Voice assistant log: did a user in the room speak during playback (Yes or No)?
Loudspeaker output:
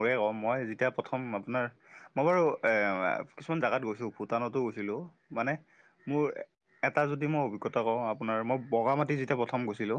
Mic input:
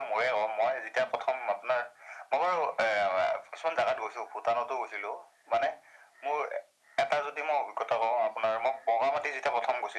No